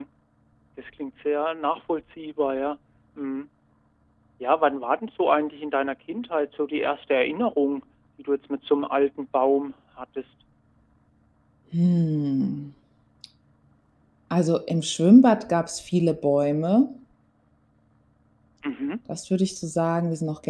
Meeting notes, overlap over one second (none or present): none